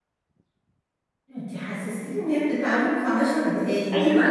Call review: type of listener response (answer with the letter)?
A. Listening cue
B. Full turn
B